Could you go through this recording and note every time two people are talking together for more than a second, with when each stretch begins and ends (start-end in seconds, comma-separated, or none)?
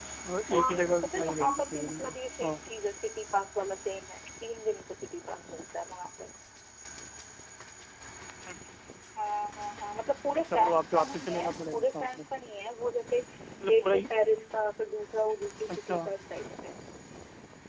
0.6-2.5, 10.5-12.2